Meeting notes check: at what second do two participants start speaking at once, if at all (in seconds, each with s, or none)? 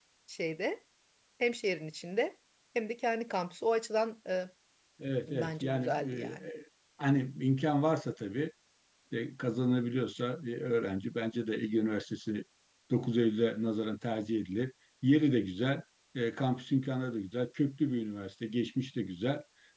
5.3 s